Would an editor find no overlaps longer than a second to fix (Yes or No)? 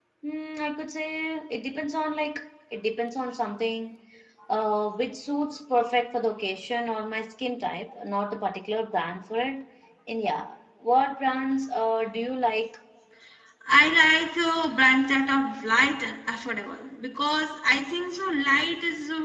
Yes